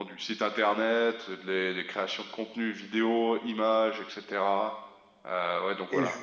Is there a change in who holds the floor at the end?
No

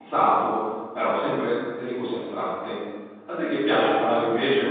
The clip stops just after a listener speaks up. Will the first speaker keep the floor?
No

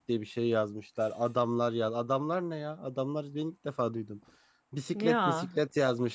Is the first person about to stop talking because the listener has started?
No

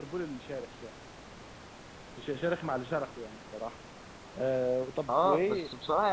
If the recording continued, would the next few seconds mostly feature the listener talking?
Yes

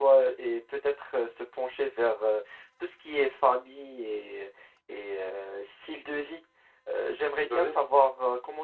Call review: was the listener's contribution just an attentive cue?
Yes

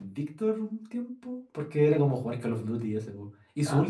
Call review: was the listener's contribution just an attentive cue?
Yes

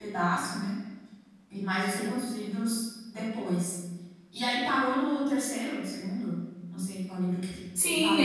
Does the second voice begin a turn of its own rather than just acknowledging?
Yes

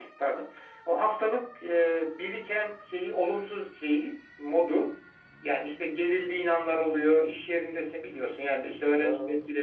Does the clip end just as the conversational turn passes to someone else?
No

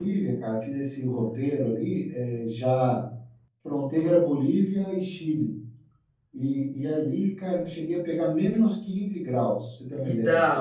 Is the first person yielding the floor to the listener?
Yes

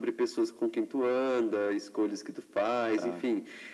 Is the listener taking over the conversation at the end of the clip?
No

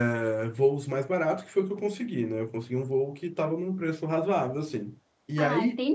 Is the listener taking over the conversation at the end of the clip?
Yes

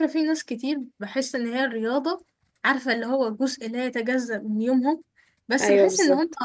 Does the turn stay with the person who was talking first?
Yes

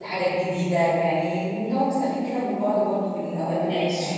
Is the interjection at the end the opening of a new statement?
Yes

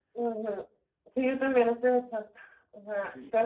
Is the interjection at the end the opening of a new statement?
No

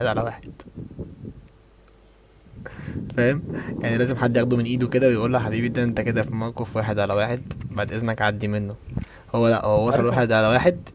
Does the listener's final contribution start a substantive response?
No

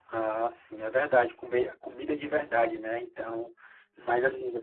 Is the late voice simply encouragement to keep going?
Yes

